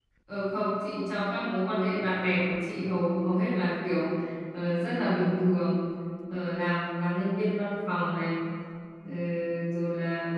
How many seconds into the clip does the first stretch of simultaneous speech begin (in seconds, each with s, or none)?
none